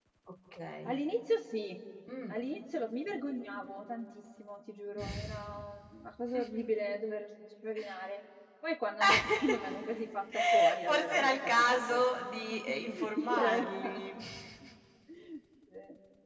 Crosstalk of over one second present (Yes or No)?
Yes